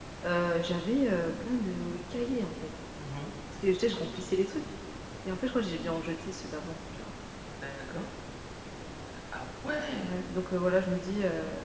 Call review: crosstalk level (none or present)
none